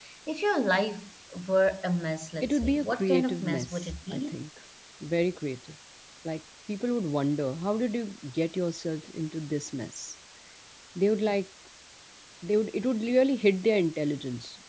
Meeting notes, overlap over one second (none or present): present